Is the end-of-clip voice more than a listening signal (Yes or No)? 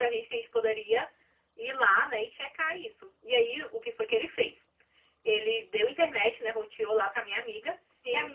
No